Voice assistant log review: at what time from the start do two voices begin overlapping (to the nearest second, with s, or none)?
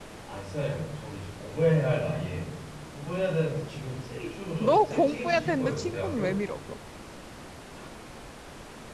5 s